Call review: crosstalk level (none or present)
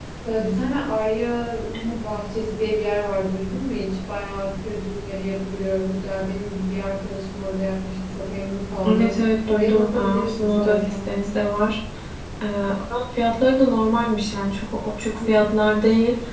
present